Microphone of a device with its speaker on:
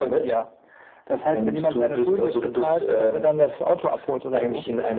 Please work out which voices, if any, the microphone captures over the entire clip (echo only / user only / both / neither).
echo only